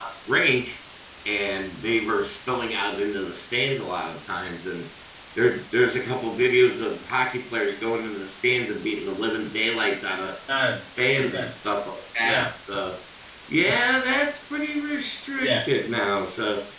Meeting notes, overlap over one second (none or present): none